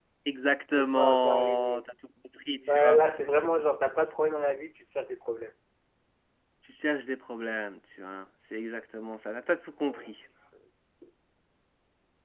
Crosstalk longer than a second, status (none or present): present